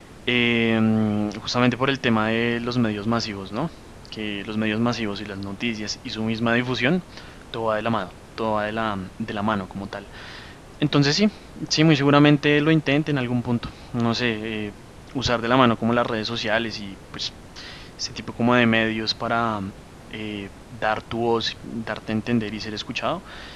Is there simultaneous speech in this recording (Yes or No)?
No